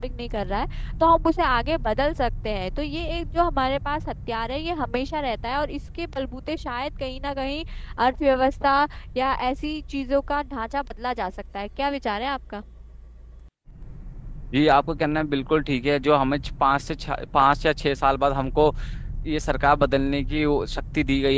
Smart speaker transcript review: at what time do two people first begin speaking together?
none

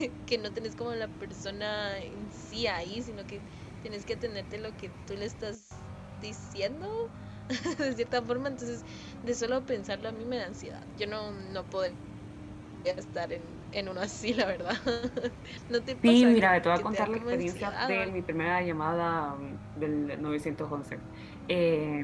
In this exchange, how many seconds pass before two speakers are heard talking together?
16 s

